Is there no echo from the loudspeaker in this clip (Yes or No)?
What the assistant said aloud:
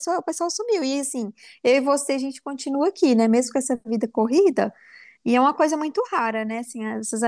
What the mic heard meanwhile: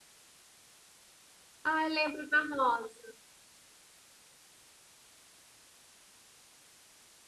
Yes